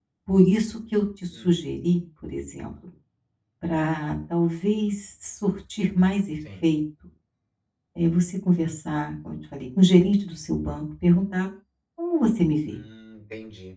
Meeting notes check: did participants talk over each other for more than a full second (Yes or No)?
No